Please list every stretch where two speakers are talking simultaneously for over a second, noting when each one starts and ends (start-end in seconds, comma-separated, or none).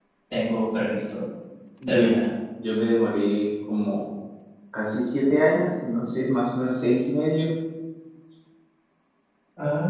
none